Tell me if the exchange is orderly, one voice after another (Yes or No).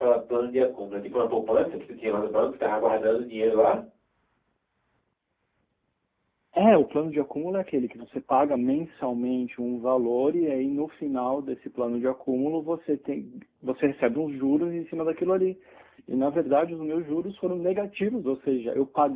Yes